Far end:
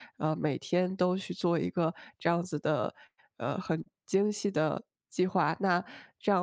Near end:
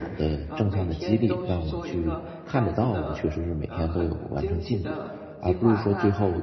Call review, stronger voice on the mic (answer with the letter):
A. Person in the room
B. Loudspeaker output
A